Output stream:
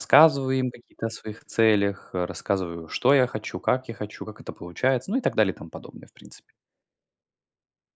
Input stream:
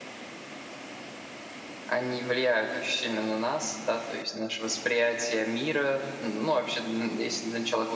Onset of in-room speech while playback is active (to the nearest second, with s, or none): 2 s